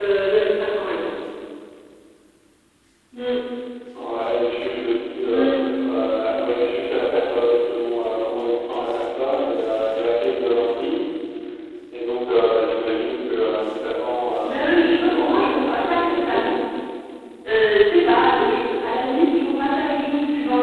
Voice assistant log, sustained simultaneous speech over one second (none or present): present